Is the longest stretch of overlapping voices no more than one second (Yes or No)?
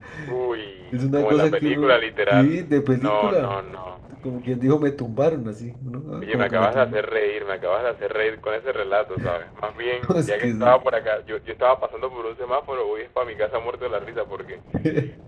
No